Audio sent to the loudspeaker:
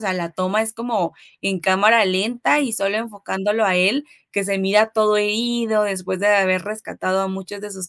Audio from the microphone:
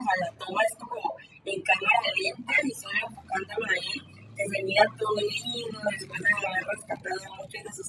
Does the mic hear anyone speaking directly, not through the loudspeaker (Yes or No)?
No